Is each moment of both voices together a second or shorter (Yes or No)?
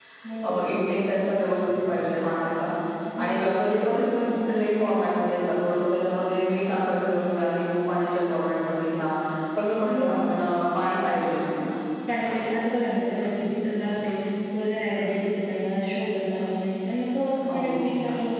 Yes